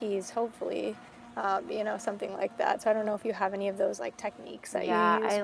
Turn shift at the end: Yes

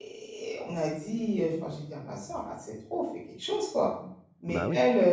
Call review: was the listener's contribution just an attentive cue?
Yes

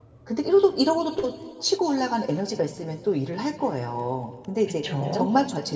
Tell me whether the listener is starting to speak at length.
No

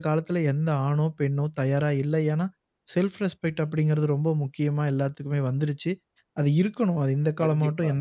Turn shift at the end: No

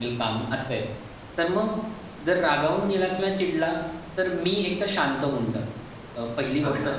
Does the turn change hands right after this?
No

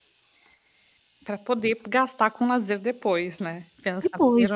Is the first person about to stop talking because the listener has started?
Yes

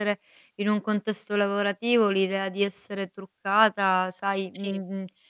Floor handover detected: No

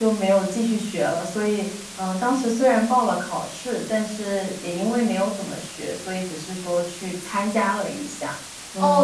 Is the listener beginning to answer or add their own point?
Yes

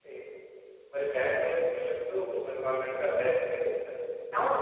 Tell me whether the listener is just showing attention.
Yes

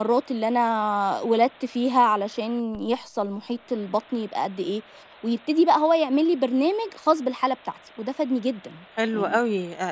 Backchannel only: No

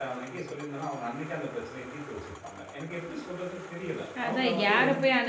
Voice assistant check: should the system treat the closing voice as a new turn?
Yes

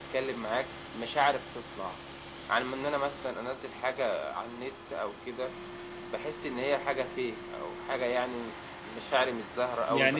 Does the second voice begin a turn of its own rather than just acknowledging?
Yes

